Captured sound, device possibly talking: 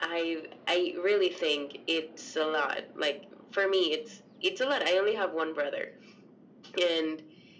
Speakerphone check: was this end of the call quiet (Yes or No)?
Yes